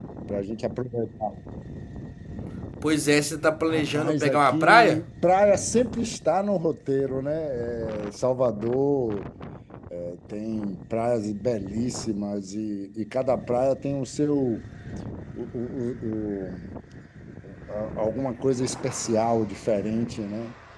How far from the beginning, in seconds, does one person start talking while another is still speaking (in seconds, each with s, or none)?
3.7 s